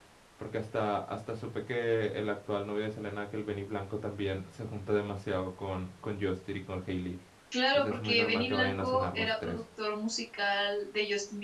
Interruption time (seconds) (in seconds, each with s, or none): 7.7 s